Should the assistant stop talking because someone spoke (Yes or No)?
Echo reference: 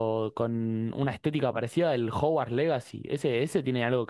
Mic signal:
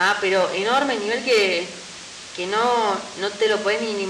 Yes